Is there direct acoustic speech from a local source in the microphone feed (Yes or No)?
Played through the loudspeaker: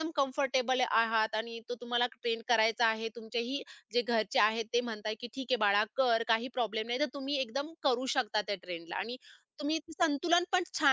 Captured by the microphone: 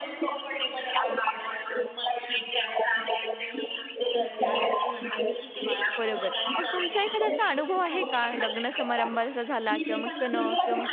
Yes